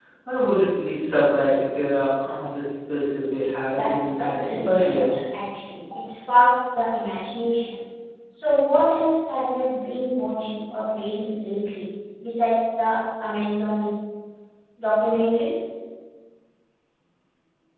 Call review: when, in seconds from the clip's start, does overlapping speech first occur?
4 s

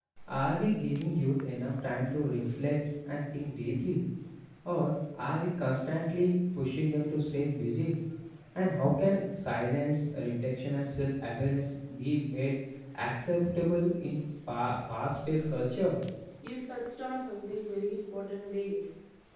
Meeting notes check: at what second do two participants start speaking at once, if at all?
none

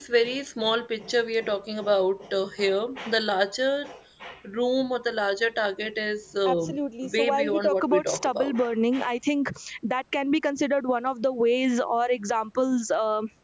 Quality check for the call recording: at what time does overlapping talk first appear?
6 s

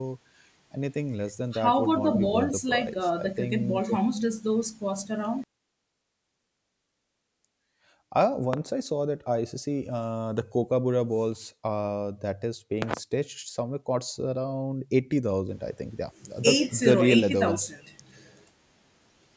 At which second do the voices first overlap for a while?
2 s

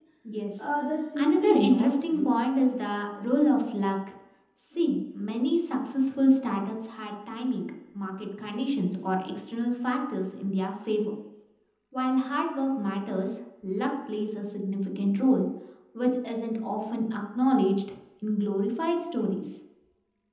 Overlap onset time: 1 s

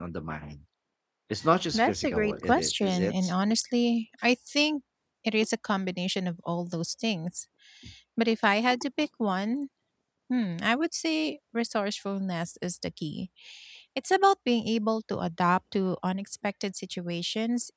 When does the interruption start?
2 s

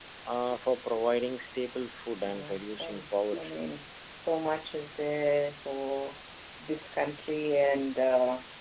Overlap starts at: 2 s

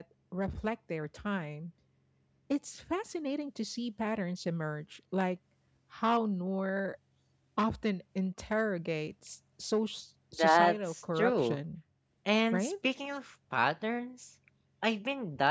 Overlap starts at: 10 s

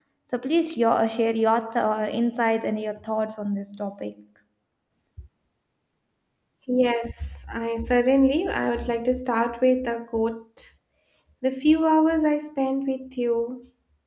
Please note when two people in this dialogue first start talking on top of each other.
none

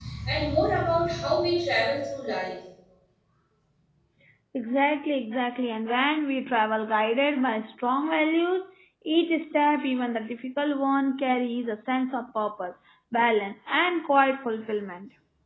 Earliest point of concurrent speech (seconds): none

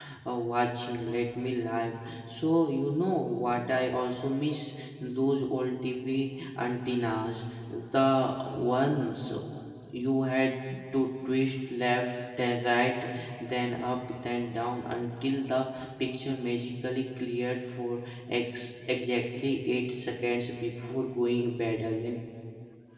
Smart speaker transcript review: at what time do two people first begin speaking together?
none

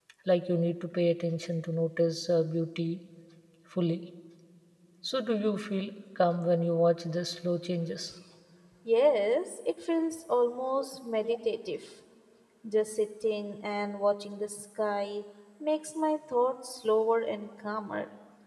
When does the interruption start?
none

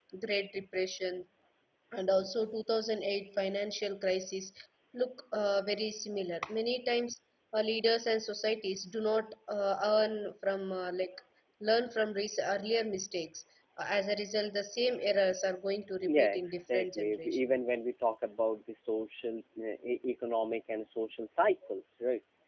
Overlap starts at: 16 s

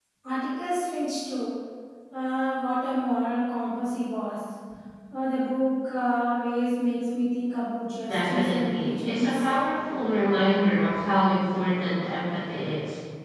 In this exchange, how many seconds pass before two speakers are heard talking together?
8 s

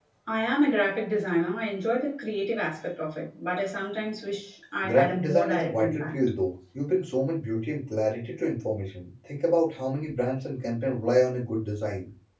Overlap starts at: 5 s

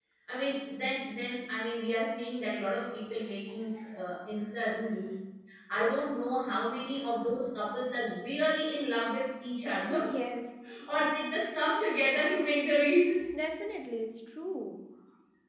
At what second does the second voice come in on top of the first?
none

